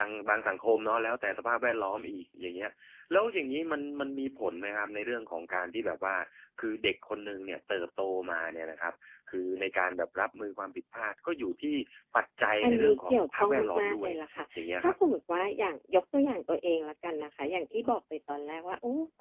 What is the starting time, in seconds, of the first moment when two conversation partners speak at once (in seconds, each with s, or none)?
12.6 s